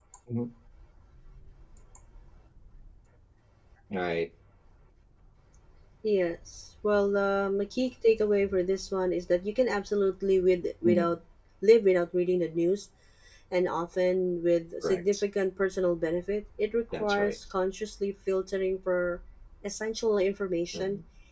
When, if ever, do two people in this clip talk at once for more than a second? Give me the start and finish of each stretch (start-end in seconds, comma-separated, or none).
none